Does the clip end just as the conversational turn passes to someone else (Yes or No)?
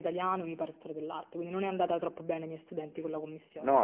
Yes